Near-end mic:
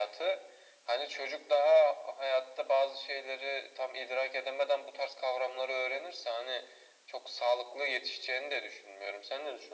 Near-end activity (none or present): none